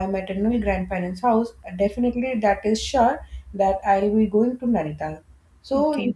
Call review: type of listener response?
listening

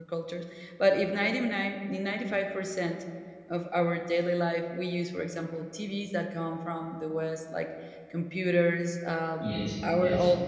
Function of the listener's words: listening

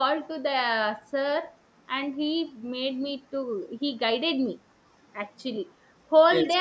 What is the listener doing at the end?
listening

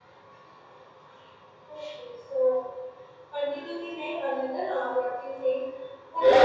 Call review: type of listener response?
taking over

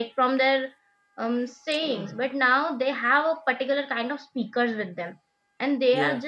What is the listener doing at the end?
listening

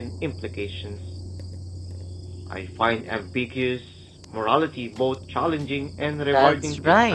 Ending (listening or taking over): taking over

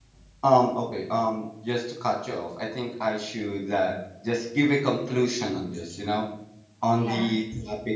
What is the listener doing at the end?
listening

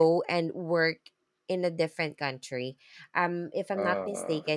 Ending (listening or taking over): listening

